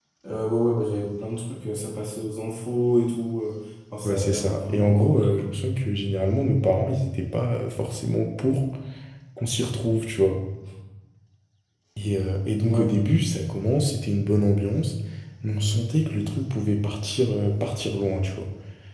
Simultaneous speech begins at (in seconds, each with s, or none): 4.0 s